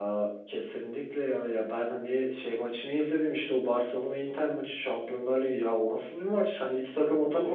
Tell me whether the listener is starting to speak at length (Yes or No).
No